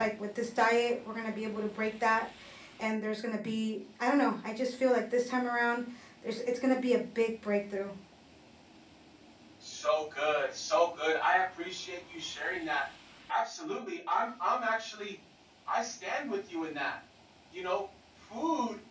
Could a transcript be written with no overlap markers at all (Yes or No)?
Yes